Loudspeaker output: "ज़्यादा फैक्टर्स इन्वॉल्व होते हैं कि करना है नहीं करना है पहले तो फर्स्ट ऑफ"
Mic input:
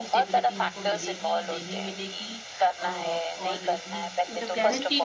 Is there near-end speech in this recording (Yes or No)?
Yes